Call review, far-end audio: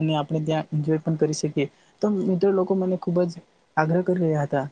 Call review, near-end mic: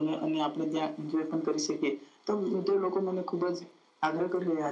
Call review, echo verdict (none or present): present